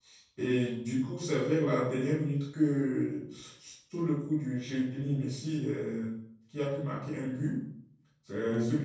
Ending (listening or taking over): listening